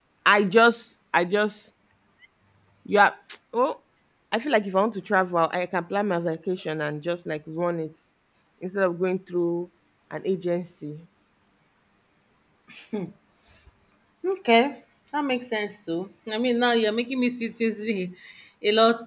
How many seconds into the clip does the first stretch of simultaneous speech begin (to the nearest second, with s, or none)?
none